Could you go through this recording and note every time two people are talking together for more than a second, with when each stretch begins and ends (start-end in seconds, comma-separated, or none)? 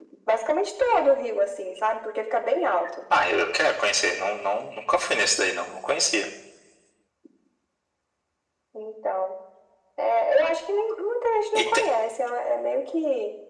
none